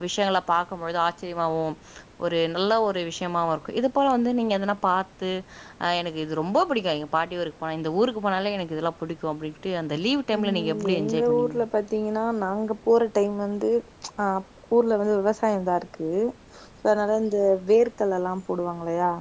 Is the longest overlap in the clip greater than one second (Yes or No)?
Yes